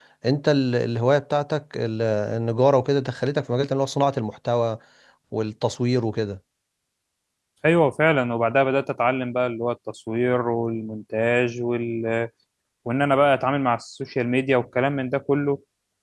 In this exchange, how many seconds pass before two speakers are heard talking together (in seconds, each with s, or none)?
none